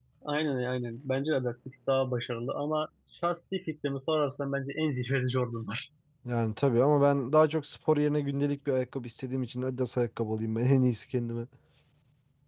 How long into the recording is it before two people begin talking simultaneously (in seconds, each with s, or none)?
none